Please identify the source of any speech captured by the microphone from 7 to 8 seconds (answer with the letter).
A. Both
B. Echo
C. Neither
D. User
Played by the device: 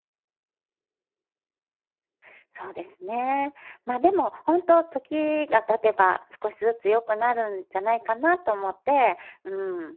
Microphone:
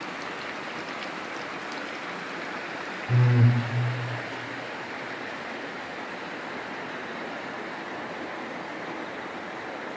C